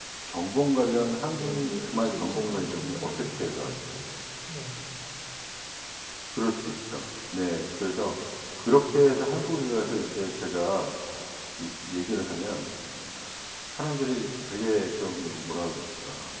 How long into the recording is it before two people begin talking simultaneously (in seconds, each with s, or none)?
1.4 s